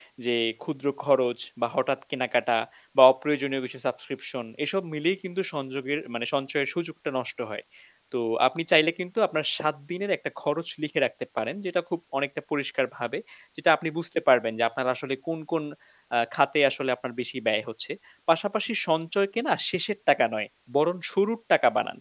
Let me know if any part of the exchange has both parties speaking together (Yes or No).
No